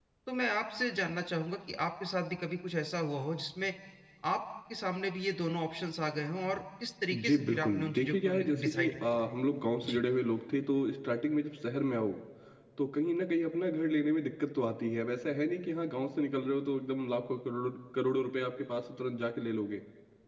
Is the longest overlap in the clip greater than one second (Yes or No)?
Yes